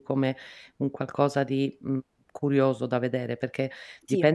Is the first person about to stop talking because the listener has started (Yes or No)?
No